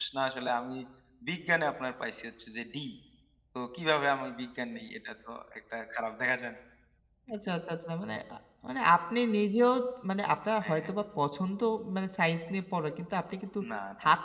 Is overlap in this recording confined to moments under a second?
Yes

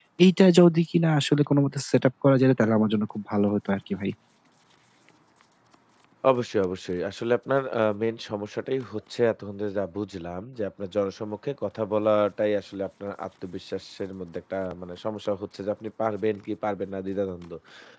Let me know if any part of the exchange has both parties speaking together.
No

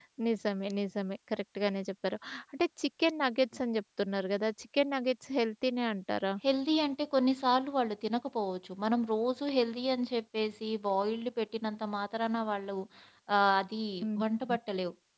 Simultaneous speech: No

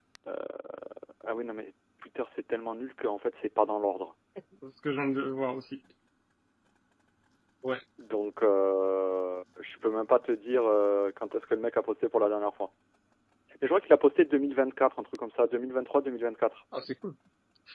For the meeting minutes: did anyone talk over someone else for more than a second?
No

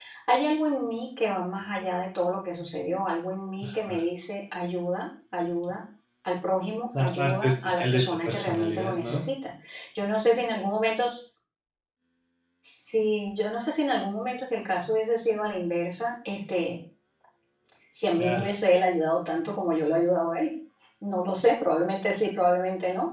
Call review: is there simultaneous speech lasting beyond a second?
Yes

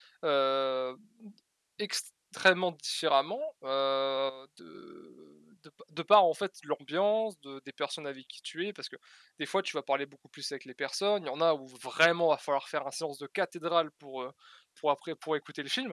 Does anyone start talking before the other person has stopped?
No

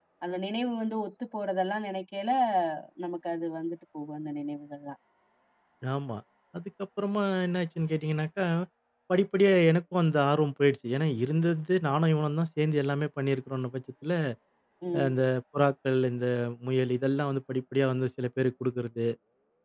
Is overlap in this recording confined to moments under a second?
Yes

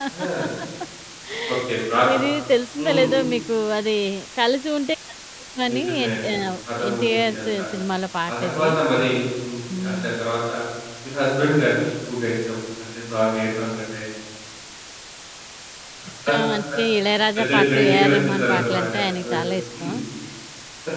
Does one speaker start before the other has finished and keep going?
Yes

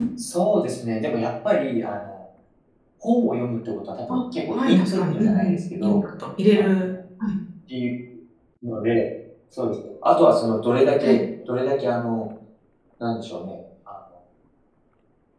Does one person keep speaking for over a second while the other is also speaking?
Yes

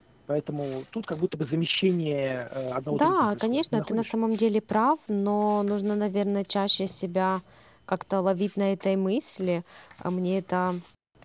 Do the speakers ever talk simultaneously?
Yes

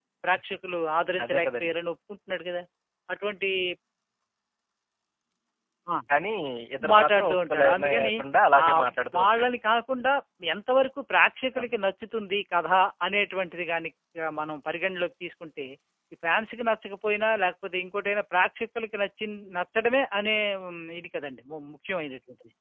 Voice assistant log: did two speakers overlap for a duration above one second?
Yes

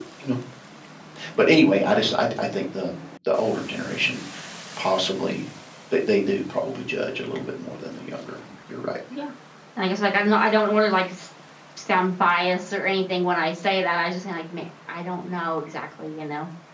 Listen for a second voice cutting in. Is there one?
No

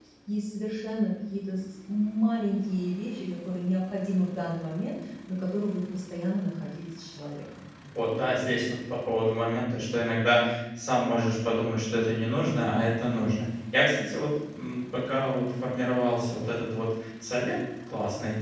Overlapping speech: No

